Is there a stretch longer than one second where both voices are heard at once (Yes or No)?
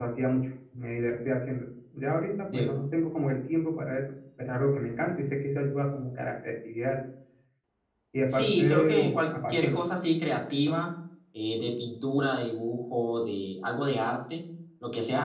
Yes